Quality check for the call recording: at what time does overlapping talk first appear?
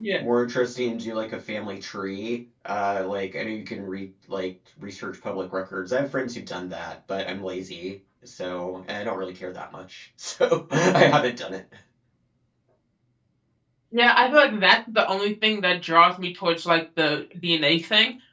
none

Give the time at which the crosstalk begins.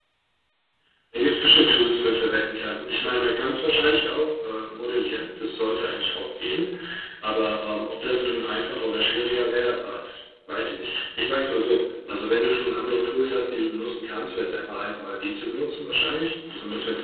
none

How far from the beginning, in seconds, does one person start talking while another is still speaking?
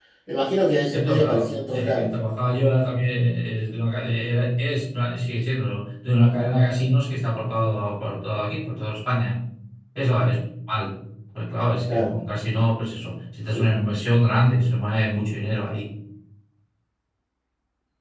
1 s

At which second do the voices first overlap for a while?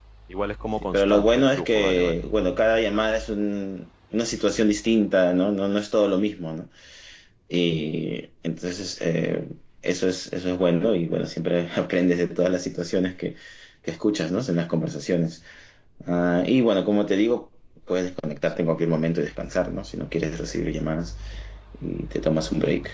1 s

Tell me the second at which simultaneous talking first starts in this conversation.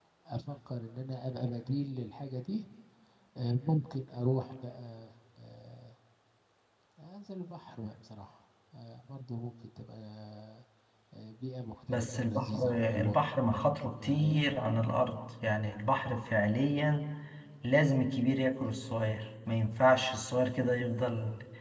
12 s

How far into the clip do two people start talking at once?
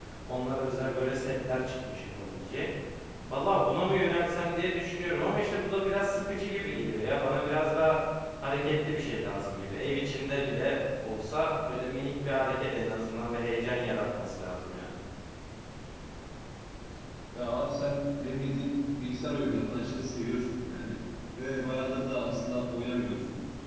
none

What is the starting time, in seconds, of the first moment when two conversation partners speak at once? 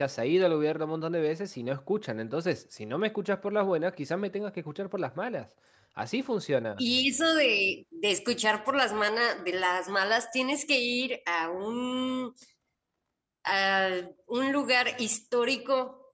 none

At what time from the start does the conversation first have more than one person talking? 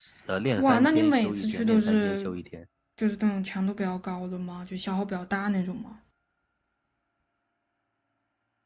1 s

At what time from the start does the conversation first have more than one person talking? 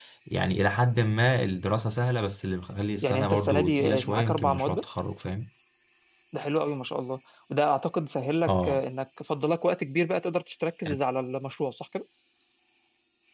3 s

